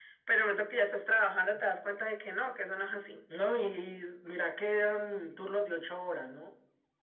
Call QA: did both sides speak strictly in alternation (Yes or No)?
Yes